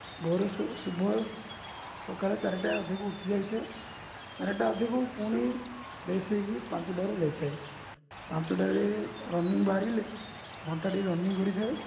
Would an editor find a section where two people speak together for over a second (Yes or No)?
No